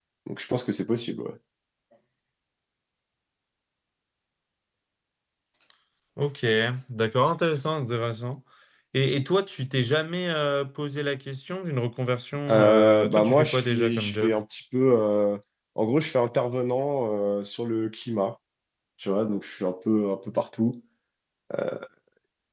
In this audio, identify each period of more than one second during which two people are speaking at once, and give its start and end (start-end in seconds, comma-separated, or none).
12.5-14.4